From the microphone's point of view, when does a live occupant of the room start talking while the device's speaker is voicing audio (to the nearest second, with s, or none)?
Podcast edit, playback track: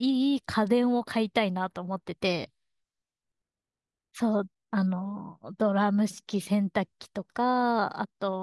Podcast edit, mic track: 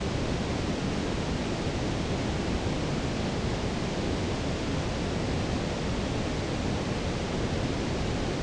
none